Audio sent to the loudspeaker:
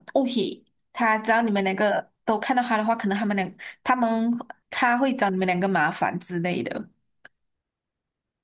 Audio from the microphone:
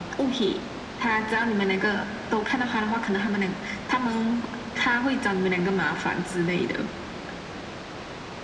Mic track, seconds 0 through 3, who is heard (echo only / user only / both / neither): echo only